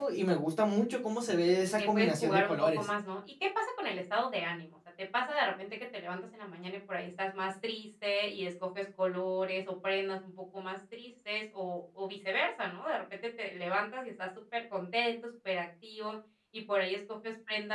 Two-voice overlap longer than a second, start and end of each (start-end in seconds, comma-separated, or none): 1.7-2.9